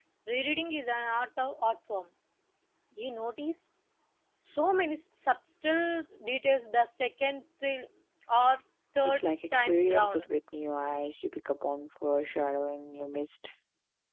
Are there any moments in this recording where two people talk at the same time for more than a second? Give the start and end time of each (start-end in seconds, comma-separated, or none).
9.0-10.3